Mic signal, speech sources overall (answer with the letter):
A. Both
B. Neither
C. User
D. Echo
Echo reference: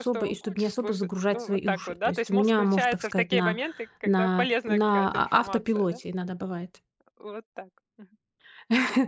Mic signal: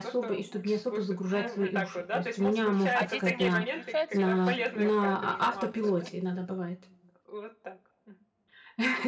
A